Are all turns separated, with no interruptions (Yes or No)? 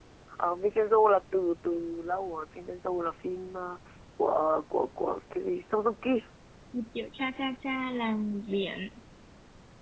Yes